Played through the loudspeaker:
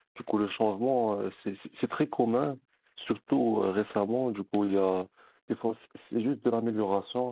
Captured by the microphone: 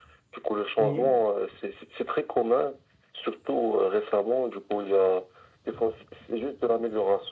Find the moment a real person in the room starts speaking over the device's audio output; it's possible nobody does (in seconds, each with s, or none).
0.8 s